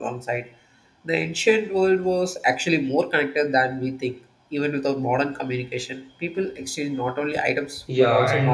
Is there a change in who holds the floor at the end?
Yes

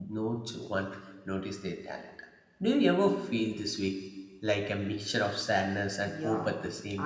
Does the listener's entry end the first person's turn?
Yes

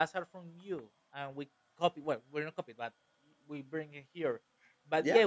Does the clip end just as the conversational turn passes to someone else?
Yes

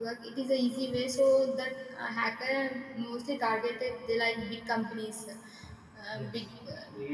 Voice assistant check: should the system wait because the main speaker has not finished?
No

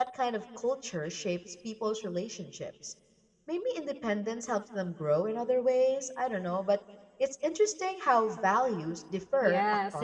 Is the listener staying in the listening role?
No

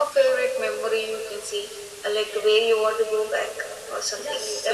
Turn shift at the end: Yes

